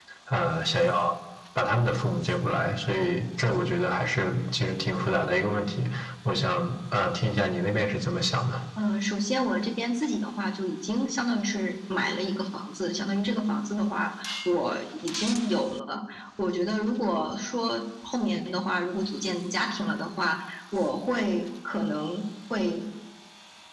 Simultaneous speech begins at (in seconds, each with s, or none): none